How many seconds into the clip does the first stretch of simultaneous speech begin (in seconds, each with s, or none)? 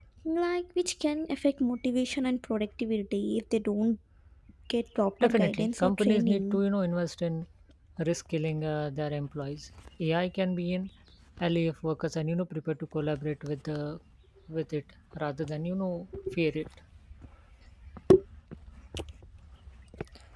5.2 s